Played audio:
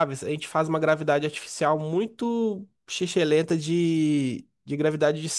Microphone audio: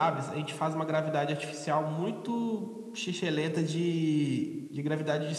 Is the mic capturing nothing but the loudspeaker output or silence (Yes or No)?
Yes